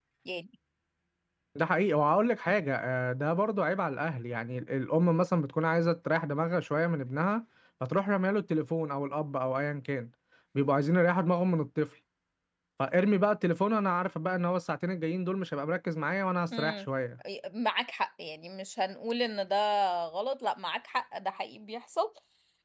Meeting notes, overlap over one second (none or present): none